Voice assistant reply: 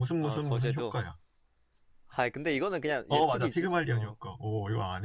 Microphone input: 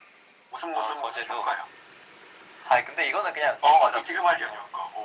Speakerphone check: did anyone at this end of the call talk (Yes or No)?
No